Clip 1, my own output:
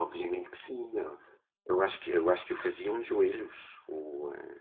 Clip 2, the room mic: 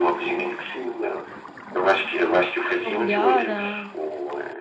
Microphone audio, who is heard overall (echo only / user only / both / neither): both